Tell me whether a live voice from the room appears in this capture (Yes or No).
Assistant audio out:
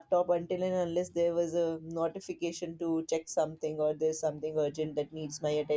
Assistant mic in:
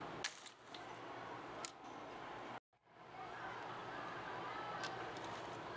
No